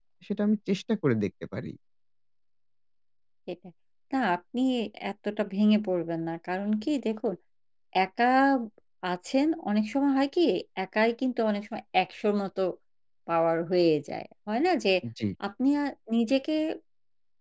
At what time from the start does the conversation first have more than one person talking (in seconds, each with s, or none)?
none